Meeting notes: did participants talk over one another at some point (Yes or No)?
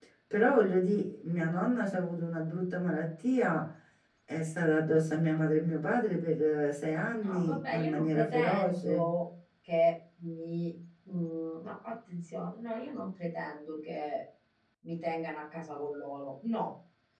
Yes